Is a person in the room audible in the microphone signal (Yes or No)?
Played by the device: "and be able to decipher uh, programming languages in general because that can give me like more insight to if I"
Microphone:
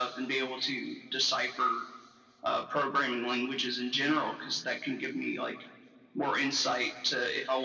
No